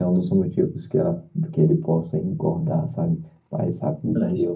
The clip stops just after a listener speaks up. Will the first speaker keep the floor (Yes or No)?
Yes